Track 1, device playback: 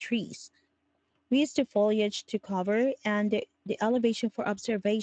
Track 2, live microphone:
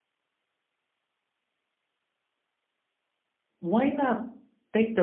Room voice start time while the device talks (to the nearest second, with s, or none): 4 s